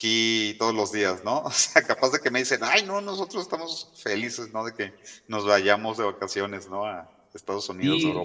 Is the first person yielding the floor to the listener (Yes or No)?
Yes